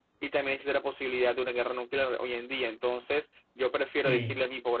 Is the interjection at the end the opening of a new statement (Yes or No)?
No